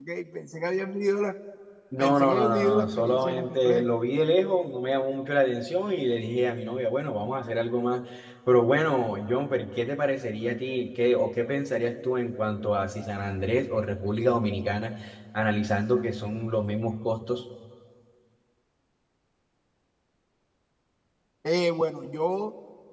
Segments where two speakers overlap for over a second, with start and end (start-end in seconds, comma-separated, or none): 2.0-3.9